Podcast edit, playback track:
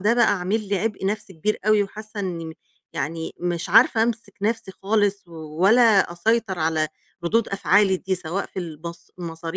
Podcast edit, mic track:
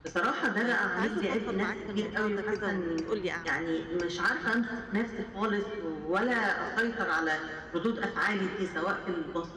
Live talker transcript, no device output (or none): فكنت عايزة أفضفض معاك في الموضوع ده كده وتقول لي أعمل إيه.